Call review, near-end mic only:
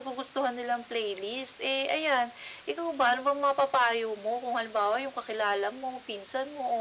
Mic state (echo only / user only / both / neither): echo only